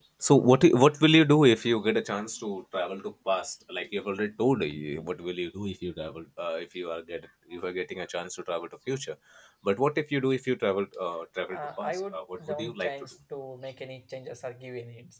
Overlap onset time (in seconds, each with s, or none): 11.5 s